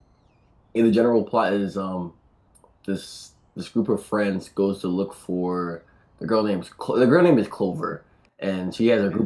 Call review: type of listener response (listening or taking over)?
listening